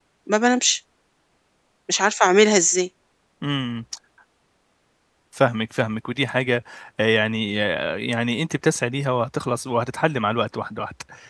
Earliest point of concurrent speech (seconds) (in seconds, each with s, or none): none